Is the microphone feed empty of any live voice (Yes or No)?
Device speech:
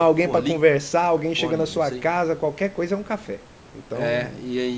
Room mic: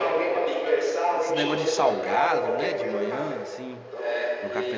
No